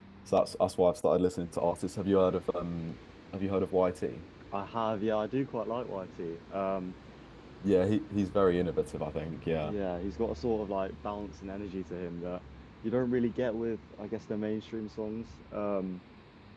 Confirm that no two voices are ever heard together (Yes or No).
Yes